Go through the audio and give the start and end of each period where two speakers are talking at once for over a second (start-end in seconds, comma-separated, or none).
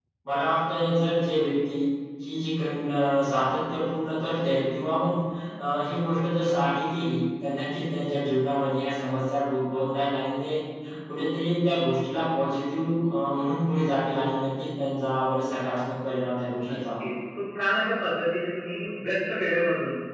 none